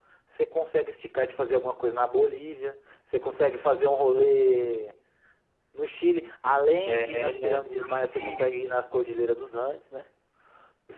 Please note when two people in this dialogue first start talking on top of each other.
6.9 s

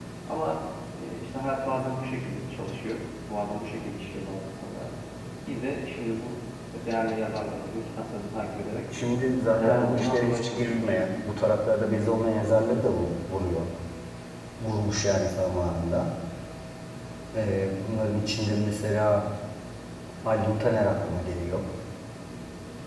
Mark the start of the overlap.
9.6 s

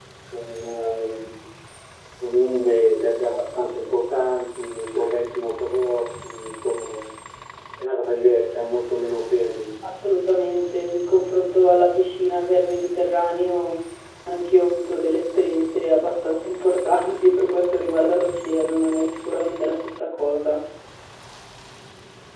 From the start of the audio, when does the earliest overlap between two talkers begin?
none

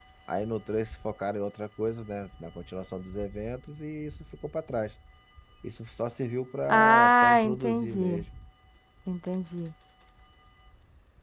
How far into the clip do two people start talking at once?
6.7 s

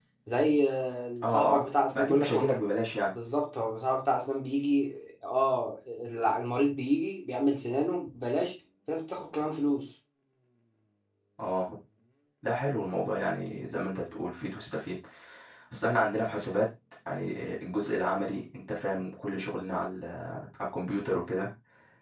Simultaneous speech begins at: 1.2 s

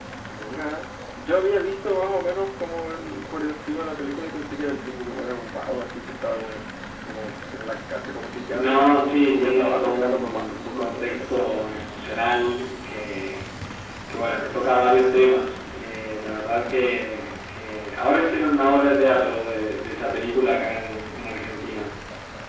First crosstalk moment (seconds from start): 8.5 s

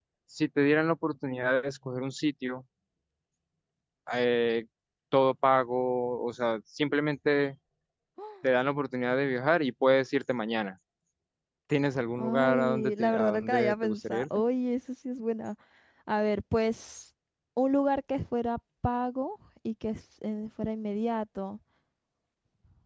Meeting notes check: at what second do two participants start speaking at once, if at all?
12.2 s

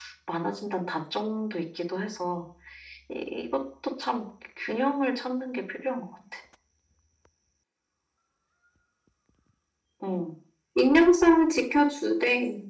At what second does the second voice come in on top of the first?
none

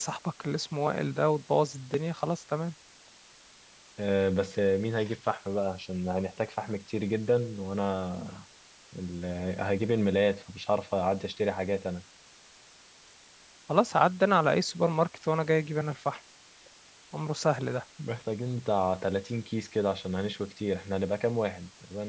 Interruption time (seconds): none

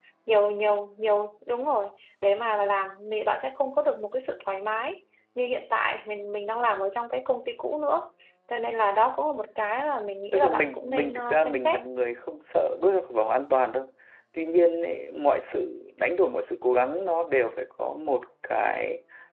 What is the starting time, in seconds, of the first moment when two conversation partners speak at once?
10.3 s

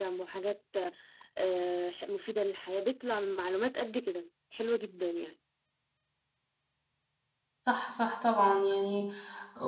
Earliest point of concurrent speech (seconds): none

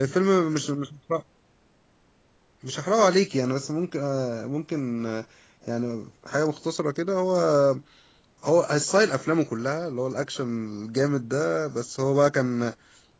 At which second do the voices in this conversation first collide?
none

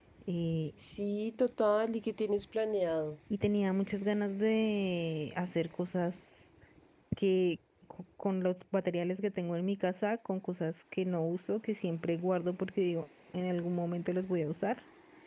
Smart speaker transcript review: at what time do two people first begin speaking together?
none

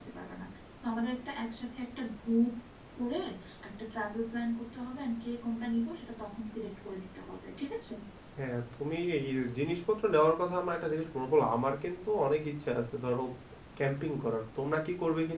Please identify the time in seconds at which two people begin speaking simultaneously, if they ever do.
none

